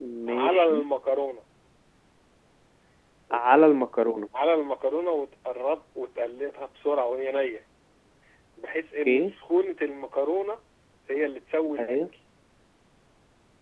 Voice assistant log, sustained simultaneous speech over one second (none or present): none